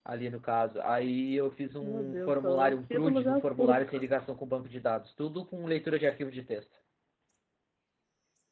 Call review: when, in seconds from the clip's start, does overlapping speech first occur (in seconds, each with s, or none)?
1.8 s